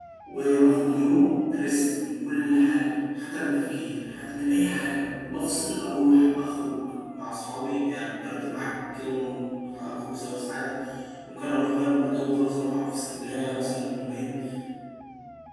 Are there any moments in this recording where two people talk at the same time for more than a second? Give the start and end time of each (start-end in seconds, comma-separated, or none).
none